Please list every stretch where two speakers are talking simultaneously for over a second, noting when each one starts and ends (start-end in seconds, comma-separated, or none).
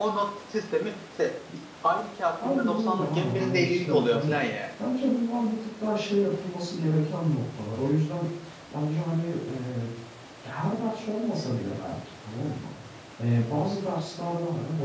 2.4-4.3